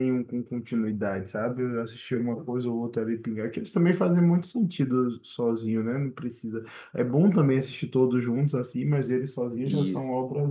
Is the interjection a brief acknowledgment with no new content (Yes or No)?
Yes